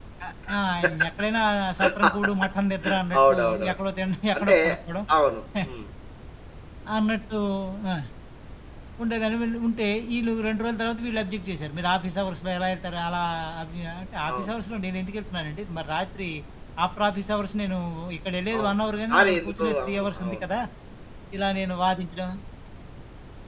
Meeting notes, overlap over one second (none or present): present